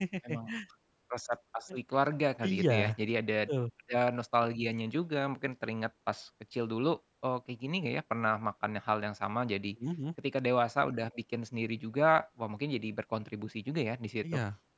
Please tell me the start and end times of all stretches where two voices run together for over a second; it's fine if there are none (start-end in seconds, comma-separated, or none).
none